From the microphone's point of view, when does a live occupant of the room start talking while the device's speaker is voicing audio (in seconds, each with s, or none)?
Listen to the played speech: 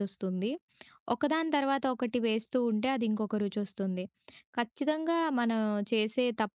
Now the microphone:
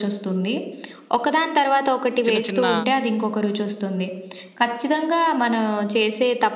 2.2 s